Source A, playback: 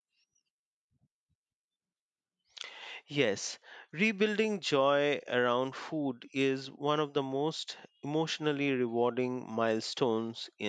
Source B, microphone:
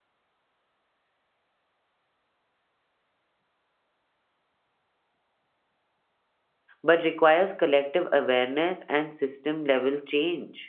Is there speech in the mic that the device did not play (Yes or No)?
Yes